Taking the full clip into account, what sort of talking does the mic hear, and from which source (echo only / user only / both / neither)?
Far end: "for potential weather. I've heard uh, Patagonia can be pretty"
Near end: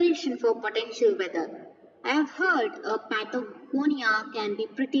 echo only